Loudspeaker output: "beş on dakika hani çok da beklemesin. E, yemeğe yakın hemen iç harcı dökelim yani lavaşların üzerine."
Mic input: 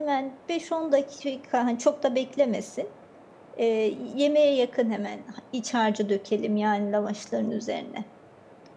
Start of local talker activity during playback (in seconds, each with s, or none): none